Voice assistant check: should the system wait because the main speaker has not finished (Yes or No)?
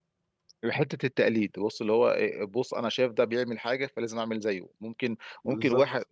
Yes